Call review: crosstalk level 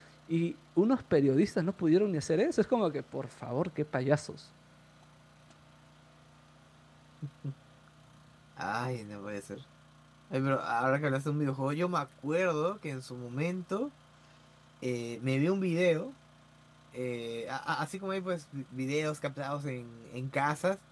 none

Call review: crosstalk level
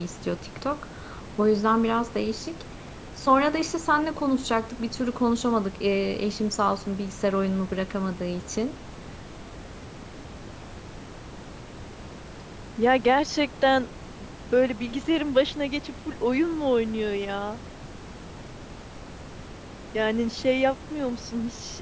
none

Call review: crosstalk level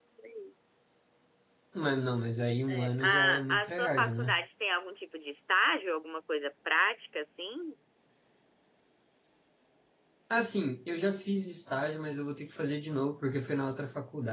present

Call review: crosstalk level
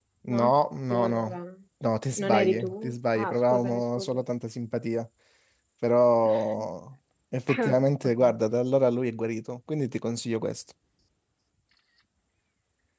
present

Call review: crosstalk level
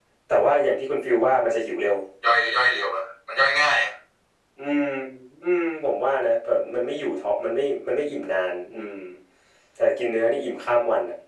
none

